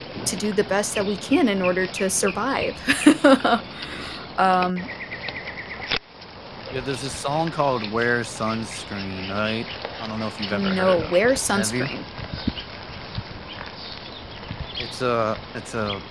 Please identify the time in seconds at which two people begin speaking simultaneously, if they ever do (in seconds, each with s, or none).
10.5 s